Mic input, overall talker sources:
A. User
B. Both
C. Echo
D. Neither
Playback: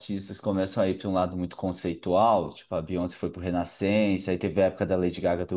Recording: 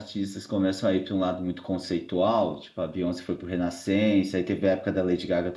C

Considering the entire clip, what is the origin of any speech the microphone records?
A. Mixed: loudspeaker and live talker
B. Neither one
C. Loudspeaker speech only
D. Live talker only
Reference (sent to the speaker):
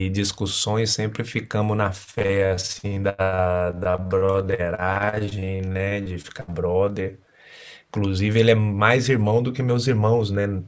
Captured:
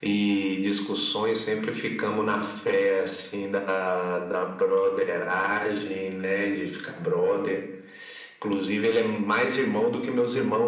C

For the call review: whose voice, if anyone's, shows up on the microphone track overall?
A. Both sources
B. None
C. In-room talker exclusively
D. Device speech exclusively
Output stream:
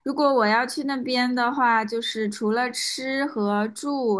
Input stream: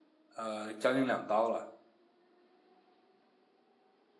C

